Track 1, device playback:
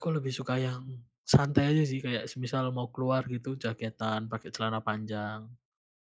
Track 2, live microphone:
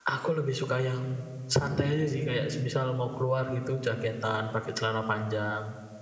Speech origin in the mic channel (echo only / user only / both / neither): echo only